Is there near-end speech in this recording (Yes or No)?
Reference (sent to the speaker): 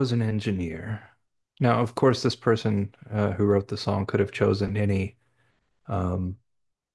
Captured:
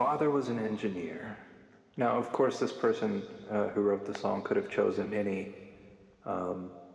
No